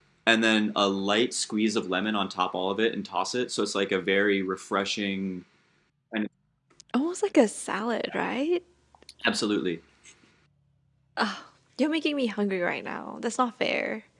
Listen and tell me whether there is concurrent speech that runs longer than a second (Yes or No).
No